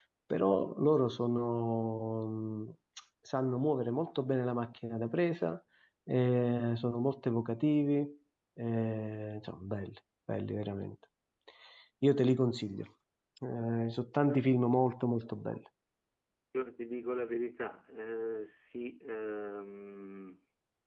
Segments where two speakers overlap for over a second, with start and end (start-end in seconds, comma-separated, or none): none